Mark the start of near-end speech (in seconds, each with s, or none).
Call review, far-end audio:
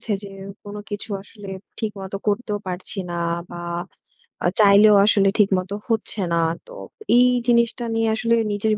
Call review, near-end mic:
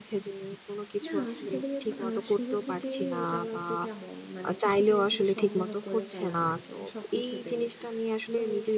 1.0 s